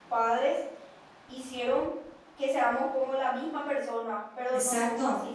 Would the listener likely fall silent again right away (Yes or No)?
Yes